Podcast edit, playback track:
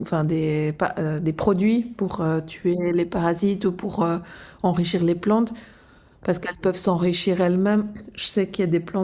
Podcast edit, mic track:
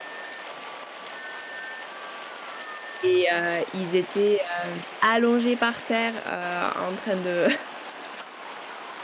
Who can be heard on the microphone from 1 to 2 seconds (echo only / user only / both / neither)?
neither